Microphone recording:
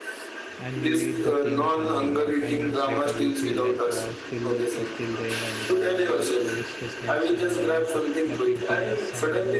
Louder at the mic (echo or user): echo